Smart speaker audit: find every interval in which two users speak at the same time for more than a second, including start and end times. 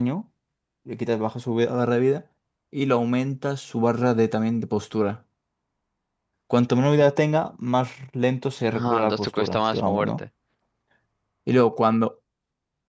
8.7-10.2

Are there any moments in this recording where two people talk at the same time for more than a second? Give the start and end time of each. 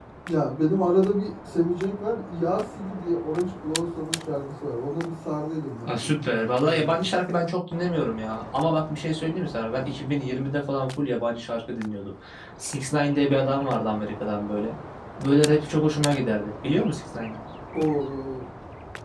5.8-7.1

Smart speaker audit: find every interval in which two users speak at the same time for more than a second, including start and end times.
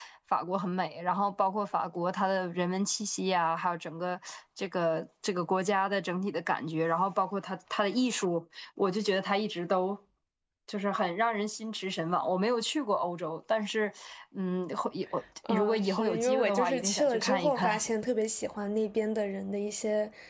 15.5-17.7

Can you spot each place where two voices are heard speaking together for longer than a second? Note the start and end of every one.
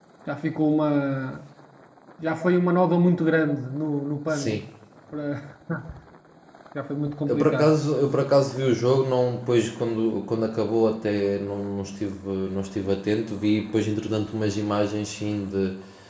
none

